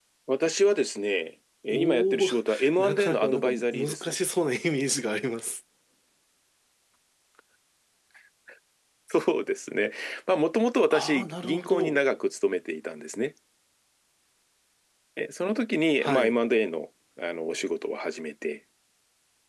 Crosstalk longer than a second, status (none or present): present